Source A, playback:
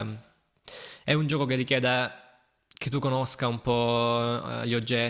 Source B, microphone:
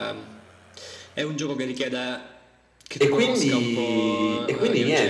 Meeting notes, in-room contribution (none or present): present